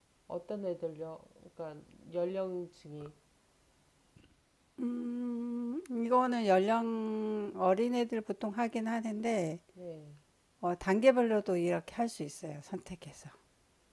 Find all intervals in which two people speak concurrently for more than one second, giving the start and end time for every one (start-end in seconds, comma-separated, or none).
none